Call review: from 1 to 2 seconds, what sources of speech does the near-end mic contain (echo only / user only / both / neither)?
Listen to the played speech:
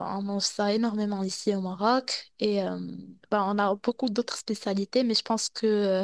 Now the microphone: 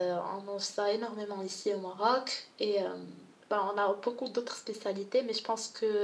echo only